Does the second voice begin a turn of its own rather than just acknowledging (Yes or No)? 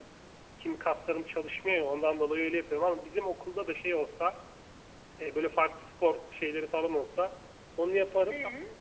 No